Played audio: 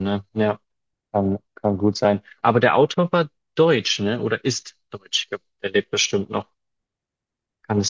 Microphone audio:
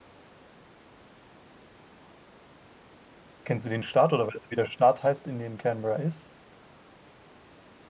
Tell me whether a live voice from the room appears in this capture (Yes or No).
Yes